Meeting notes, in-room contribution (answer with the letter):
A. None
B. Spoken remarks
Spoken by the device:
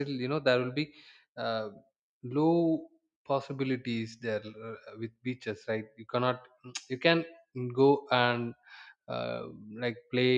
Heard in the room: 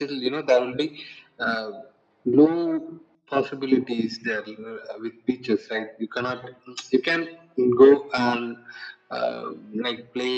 A